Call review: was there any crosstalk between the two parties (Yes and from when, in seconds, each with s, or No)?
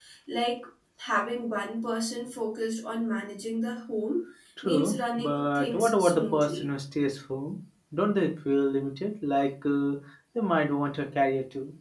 Yes, from 4.6 s